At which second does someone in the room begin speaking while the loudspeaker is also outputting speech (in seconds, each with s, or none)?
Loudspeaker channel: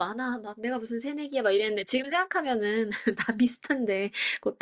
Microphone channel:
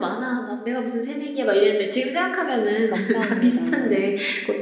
2.9 s